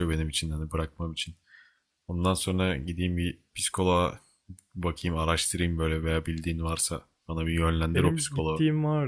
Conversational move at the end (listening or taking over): taking over